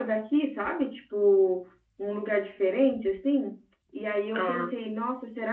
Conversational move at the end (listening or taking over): listening